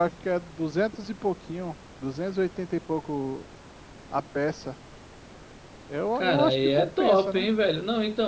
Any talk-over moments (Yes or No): Yes